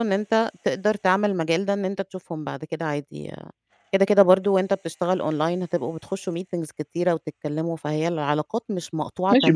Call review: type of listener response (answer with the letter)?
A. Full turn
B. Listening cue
A